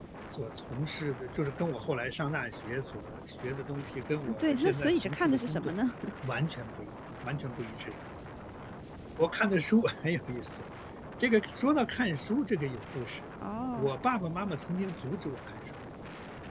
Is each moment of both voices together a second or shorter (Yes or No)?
No